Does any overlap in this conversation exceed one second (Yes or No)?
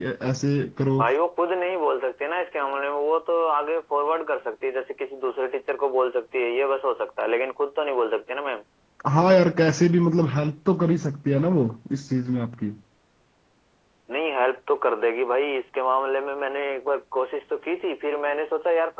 No